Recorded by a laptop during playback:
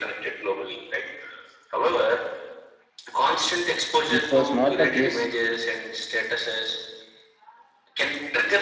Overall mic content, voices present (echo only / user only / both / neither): both